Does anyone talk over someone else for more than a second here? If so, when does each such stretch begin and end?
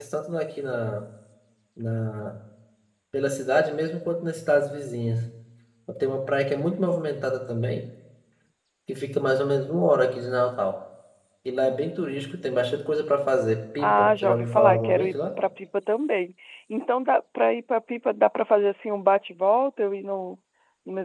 13.8-15.1

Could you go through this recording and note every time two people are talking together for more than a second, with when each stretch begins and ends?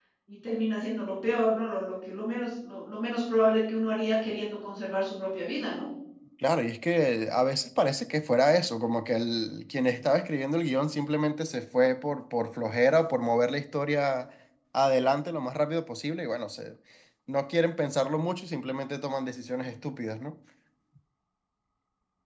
none

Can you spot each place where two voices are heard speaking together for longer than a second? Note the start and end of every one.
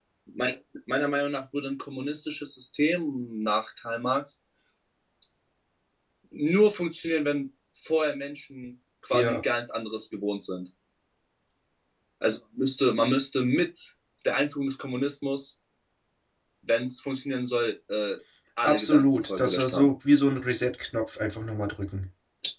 18.6-19.9

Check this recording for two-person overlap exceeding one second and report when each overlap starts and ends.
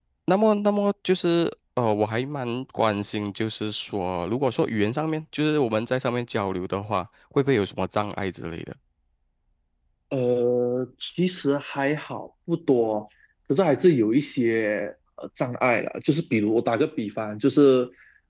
none

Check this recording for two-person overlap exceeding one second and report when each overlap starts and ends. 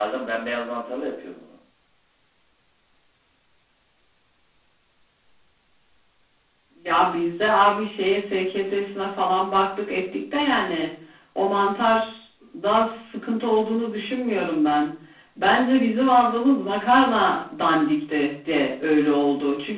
none

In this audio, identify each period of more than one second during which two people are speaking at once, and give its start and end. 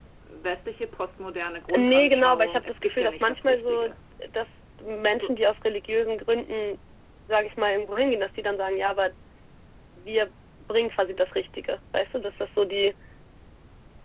1.8-3.9

